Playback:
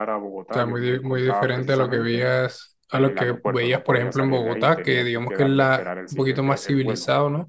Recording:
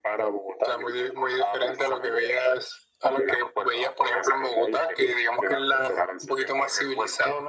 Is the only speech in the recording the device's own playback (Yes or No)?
Yes